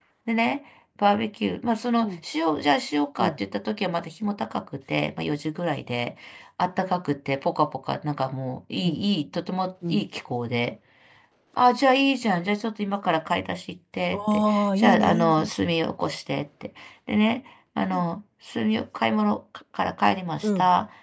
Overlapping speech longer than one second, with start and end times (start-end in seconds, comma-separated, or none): 14.1-15.5